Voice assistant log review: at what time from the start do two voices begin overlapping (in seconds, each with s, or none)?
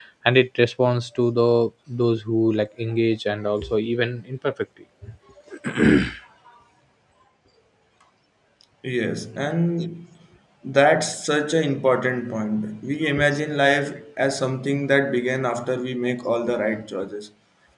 none